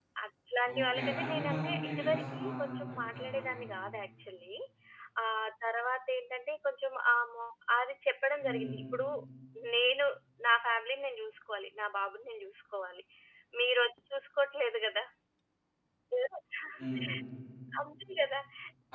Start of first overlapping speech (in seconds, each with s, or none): 0.8 s